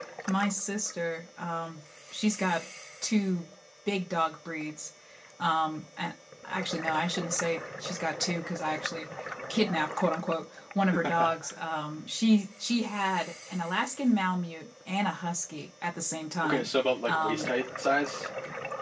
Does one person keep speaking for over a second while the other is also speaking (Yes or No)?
No